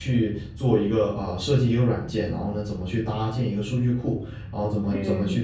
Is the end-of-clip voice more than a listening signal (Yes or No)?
No